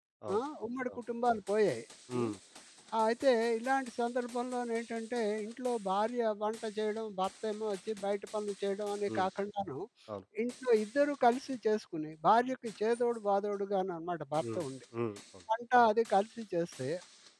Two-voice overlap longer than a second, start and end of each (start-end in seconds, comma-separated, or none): none